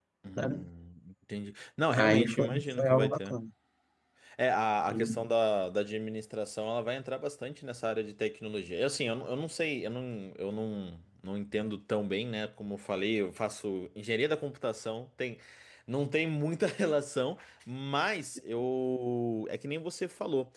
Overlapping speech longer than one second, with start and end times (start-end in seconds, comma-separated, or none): 1.9-3.3